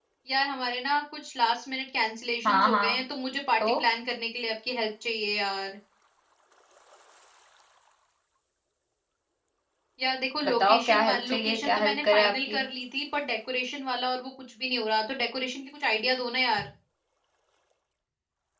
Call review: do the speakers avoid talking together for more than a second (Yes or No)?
No